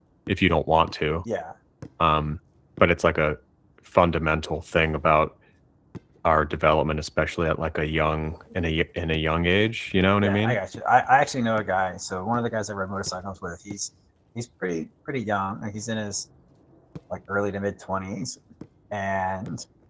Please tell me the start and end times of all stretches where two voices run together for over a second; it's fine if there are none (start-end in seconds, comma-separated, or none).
none